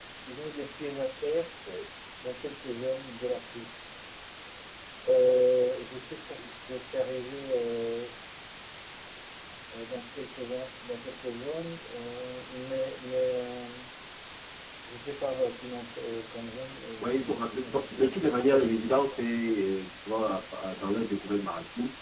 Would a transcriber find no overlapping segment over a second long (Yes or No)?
No